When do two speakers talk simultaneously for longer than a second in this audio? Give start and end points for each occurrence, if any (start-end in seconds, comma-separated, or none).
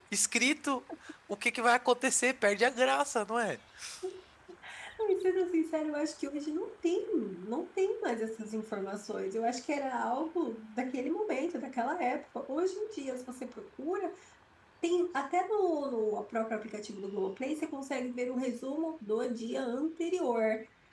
none